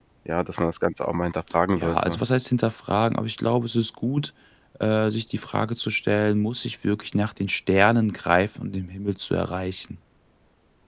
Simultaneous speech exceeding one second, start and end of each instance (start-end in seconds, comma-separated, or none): none